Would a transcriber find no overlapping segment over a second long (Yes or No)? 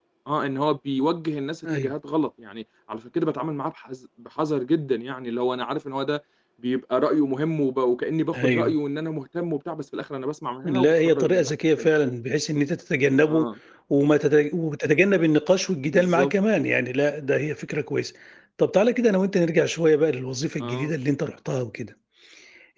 No